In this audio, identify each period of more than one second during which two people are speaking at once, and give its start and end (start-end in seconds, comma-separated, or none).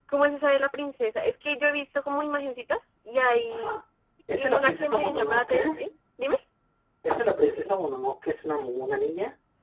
4.3-5.6